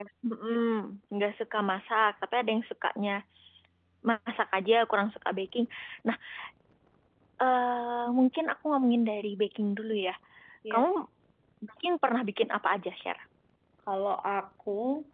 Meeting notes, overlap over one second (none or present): none